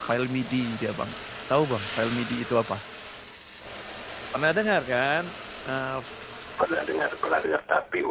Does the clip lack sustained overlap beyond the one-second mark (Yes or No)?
Yes